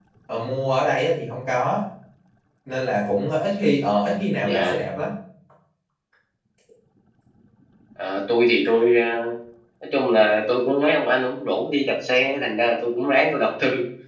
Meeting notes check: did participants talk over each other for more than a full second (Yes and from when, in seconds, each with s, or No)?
No